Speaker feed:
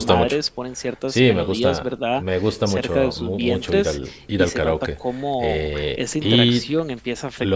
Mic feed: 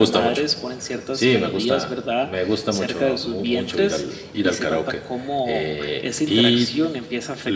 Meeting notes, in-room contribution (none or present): none